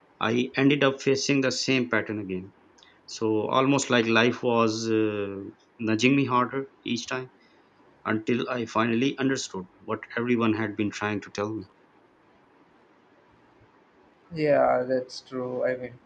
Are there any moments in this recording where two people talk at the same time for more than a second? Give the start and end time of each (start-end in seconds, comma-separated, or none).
none